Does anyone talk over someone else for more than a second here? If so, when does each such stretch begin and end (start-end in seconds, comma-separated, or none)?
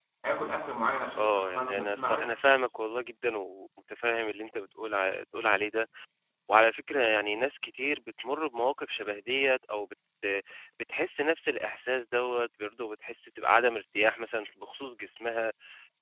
1.2-2.6